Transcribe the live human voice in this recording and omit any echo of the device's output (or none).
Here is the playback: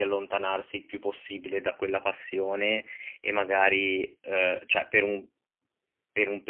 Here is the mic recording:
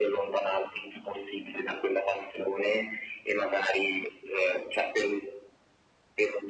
none